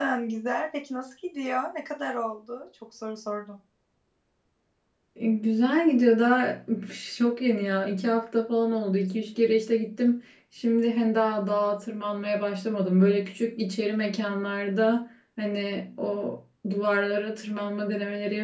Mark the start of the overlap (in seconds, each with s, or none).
none